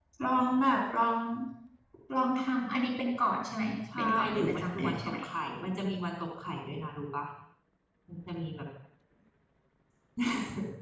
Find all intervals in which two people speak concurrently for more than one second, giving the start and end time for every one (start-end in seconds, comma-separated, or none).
4.0-5.2